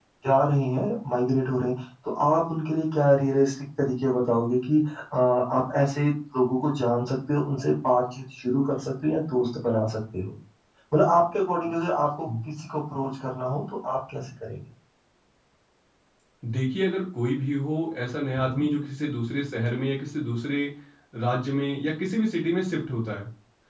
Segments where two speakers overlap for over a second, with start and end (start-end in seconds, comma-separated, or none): none